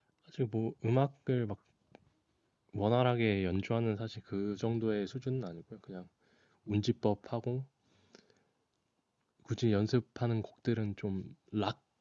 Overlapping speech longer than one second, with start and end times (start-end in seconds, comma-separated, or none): none